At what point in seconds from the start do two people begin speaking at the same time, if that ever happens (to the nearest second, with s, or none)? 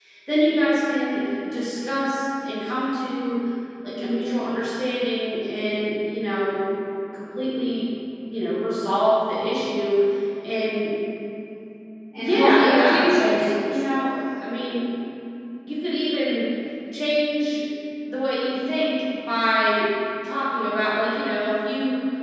12 s